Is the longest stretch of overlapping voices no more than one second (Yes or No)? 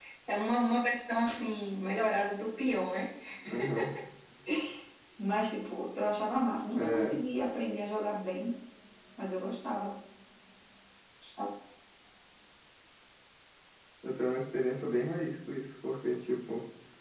Yes